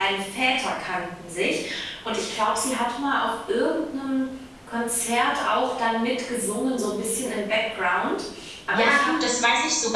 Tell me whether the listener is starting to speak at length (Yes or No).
Yes